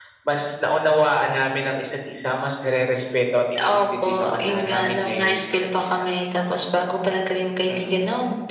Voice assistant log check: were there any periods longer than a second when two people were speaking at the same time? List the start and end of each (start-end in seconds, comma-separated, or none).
3.6-6.0